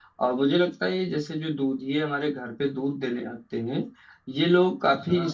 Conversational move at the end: listening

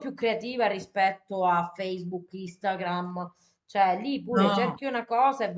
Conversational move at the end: listening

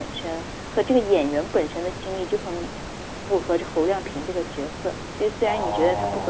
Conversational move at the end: taking over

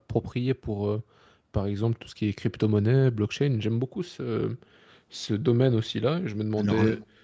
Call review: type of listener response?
listening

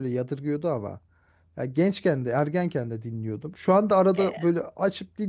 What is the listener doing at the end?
listening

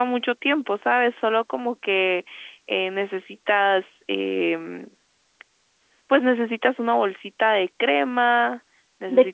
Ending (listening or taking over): taking over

